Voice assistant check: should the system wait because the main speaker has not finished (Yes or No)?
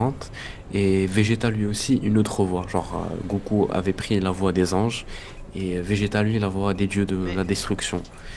Yes